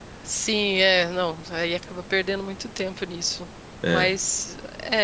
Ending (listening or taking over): listening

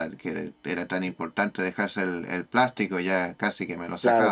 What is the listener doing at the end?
taking over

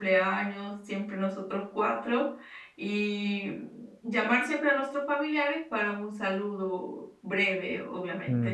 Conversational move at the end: taking over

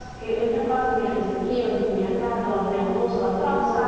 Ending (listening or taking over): taking over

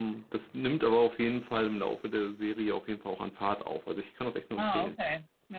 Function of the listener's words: taking over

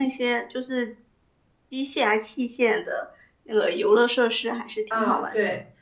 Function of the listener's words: taking over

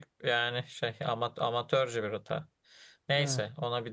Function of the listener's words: listening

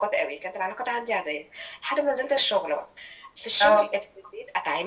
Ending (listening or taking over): listening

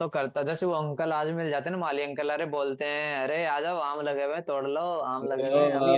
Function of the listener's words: listening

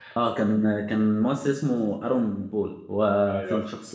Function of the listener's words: listening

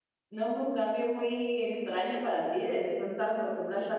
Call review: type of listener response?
taking over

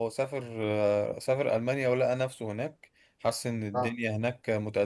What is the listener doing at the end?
listening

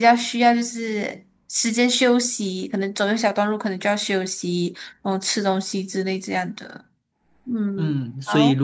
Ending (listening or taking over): taking over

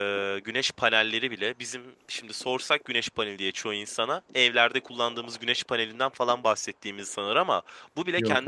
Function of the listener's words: listening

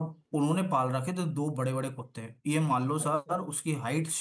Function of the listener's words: listening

